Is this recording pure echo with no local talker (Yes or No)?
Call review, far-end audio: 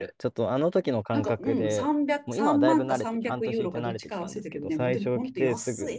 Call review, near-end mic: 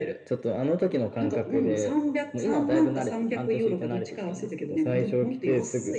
Yes